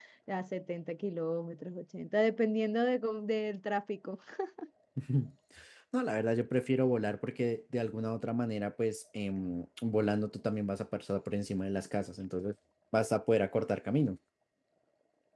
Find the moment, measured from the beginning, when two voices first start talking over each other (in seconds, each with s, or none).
none